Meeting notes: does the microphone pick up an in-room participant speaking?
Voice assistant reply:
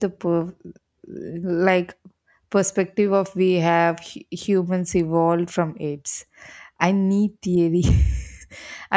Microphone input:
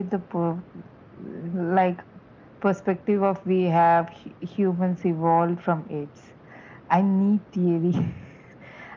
No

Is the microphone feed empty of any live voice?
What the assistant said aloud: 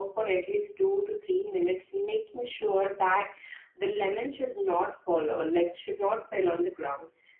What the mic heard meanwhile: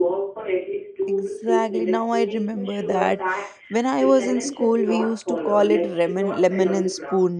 No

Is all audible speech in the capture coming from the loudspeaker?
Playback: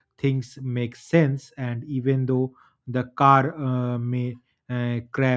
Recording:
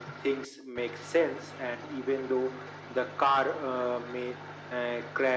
Yes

